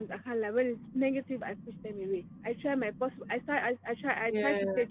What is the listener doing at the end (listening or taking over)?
listening